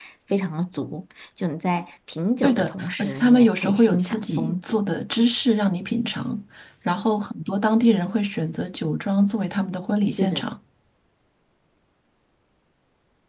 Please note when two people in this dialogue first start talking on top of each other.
2.4 s

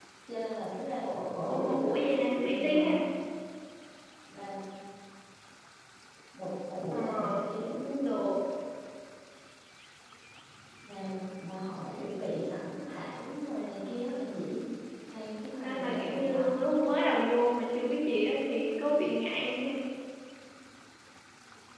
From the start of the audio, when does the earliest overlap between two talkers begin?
1.5 s

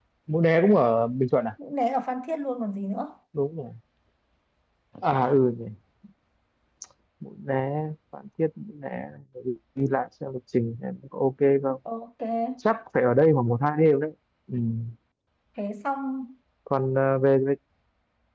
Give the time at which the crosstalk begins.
none

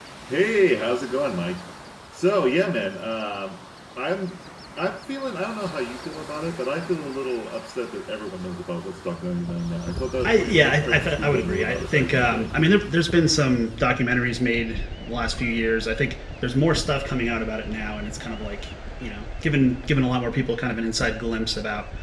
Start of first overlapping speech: 10.2 s

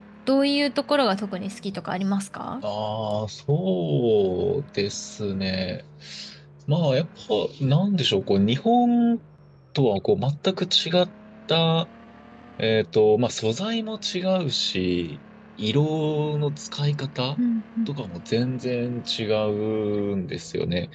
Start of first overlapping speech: none

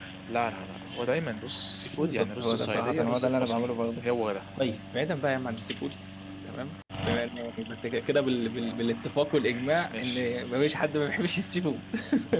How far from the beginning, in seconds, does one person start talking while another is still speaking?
2.0 s

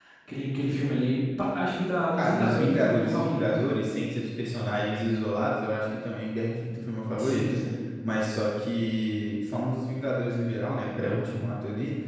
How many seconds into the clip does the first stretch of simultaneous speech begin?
2.2 s

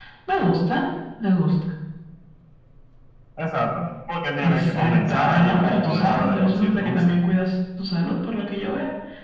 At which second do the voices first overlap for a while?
4.3 s

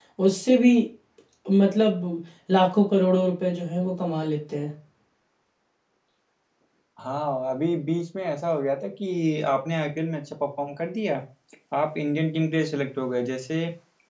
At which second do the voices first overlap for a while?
none

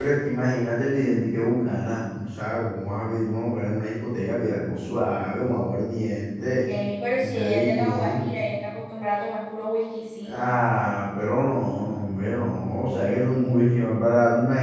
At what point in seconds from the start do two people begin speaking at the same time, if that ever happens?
7.1 s

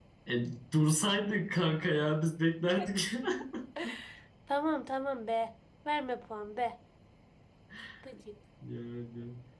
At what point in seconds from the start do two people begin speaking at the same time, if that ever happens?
none

